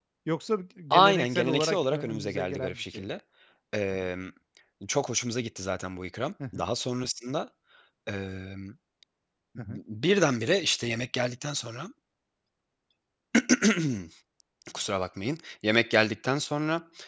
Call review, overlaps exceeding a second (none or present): present